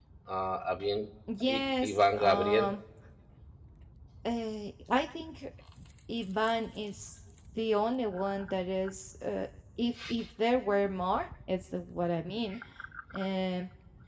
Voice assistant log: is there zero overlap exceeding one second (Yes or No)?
No